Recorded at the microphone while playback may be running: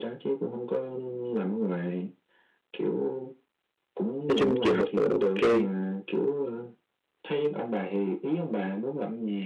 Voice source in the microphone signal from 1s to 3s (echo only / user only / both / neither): echo only